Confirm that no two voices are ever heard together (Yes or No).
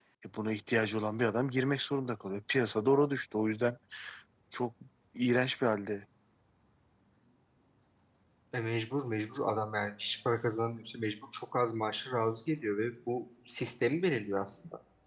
Yes